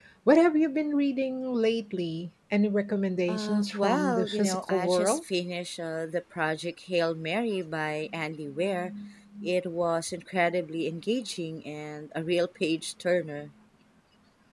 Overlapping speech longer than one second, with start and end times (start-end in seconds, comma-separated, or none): 3.3-5.2